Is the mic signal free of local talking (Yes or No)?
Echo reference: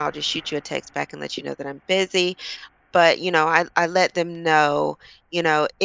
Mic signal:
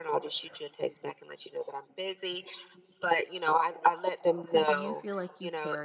No